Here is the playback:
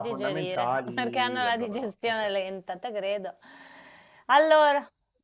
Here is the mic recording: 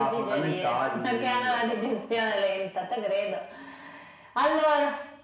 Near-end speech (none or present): none